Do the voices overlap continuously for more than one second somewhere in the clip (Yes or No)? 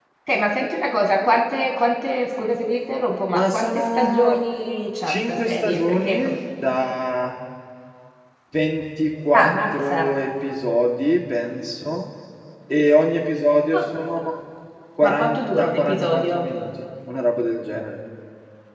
Yes